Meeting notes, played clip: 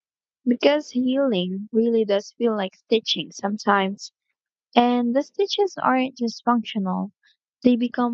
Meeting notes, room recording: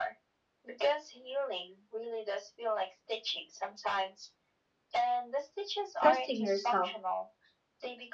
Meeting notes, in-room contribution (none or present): present